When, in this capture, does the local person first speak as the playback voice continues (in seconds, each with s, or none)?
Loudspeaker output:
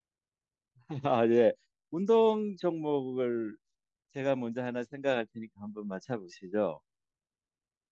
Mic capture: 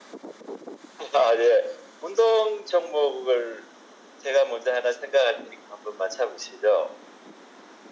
none